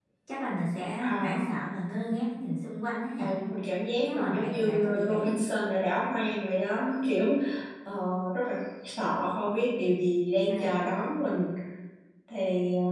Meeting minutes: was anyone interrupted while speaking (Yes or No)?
Yes